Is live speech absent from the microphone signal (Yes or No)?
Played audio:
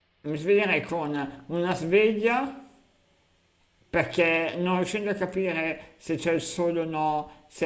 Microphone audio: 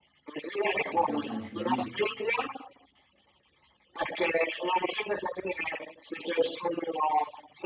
No